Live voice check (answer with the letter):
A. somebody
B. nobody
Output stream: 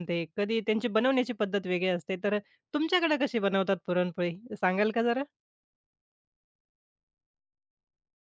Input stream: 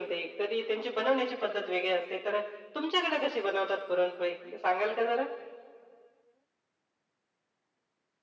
B